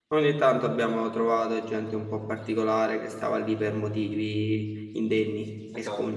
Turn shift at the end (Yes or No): Yes